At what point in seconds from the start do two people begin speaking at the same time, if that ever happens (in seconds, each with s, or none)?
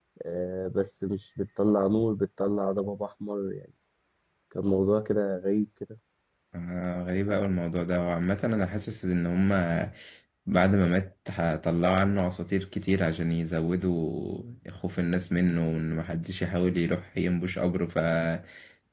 none